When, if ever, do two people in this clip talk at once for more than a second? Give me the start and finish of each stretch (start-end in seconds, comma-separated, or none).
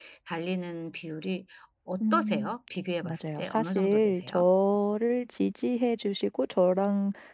3.0-4.5